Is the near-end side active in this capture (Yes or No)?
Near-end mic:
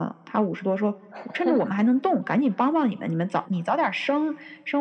Yes